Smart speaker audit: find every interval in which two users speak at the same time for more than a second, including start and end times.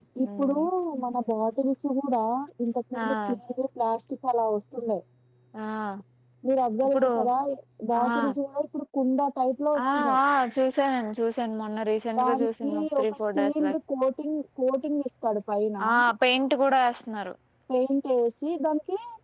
12.2-13.7

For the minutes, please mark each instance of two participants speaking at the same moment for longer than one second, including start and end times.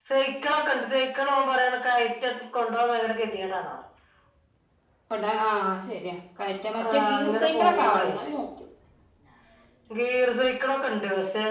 6.9-8.1

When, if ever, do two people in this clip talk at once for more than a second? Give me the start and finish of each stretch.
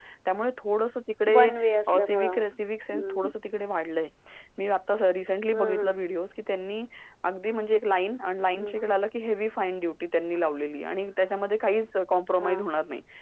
none

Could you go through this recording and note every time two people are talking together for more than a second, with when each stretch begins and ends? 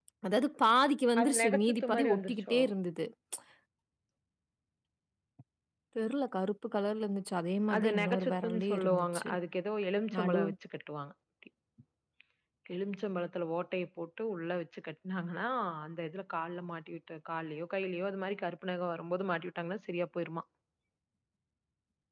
1.2-2.6, 7.8-9.3

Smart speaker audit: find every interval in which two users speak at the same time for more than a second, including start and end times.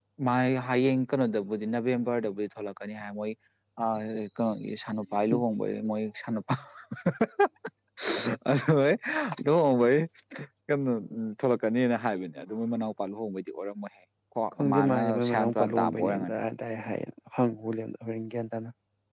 14.6-16.4

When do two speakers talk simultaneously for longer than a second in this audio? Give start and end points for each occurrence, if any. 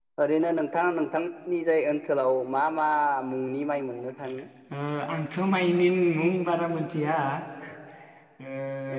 none

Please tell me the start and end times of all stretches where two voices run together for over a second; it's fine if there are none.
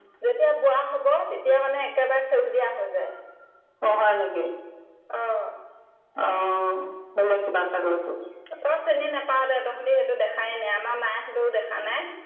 none

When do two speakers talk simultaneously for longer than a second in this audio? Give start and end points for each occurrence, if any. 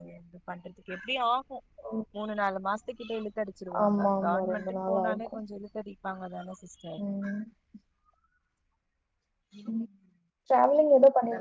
3.9-5.3

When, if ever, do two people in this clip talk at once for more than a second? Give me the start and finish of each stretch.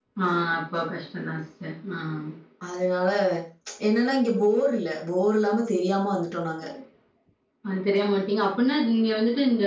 none

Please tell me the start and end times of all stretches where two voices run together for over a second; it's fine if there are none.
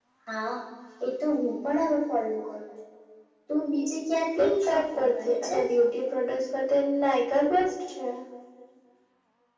4.4-5.6

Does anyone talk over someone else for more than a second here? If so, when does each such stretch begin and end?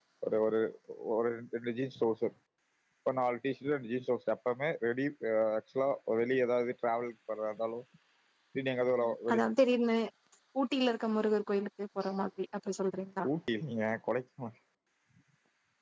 none

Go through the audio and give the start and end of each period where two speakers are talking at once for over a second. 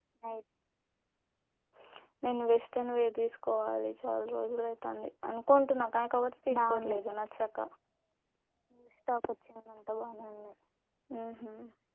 none

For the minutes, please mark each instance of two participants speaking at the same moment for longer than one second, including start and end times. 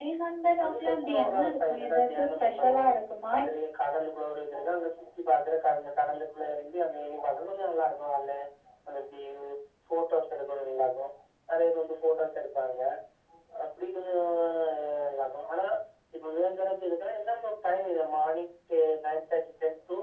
0.6-2.8

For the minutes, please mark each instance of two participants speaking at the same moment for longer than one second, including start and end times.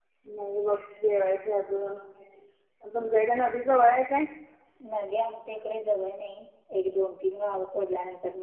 none

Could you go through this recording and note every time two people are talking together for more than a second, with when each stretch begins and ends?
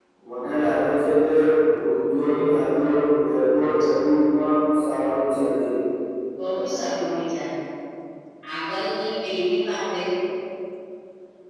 none

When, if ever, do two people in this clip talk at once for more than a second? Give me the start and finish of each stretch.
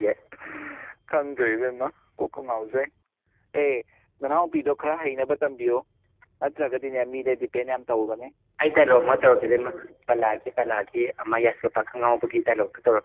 none

